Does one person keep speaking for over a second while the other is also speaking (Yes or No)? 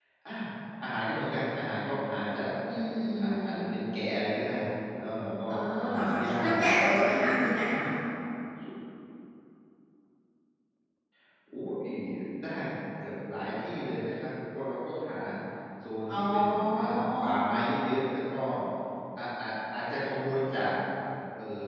Yes